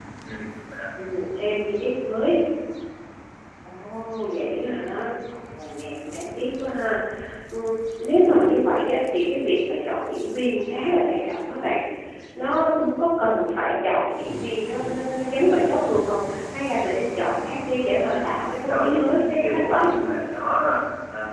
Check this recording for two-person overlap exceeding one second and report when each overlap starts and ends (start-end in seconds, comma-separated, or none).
18.7-19.9